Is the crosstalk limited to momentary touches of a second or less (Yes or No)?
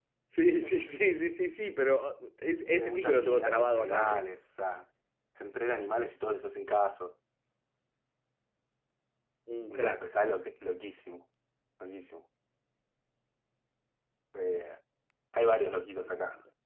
No